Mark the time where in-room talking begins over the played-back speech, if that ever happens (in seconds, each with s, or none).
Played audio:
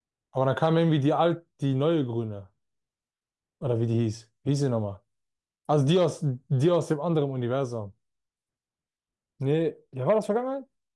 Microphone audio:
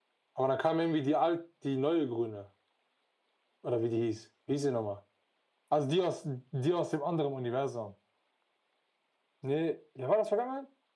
none